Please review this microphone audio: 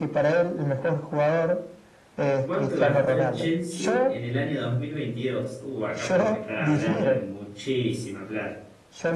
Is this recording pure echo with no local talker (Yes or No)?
No